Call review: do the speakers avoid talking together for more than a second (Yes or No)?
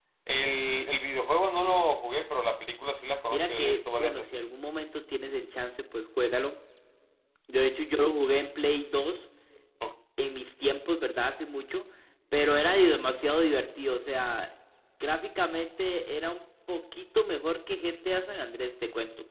No